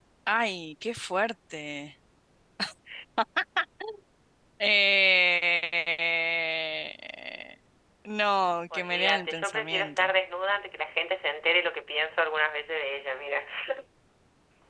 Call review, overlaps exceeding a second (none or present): present